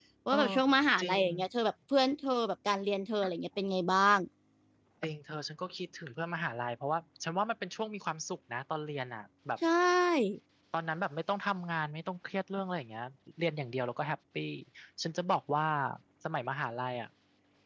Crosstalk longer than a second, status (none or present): none